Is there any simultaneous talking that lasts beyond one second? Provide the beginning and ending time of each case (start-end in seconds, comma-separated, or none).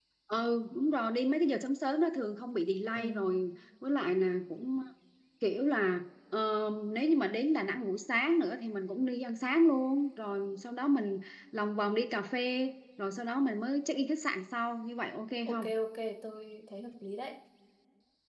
none